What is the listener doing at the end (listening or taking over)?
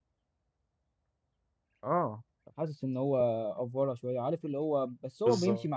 listening